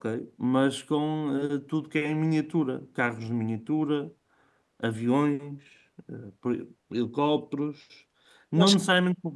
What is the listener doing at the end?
listening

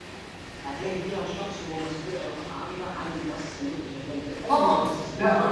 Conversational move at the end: taking over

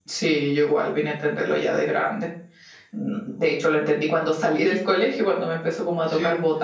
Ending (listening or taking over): taking over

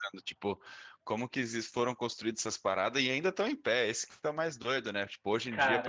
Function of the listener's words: listening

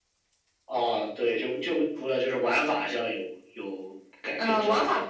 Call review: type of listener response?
taking over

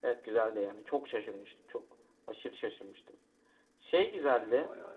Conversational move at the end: listening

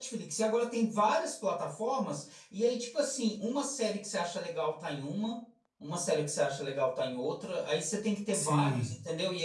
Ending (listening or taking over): listening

